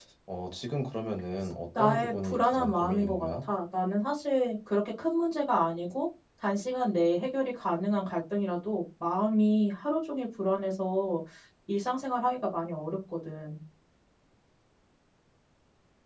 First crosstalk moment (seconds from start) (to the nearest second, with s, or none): 2 s